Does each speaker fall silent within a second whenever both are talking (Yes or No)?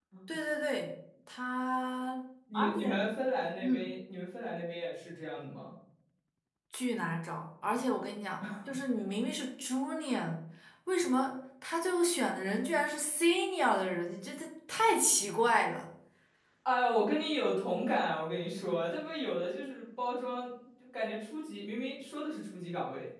Yes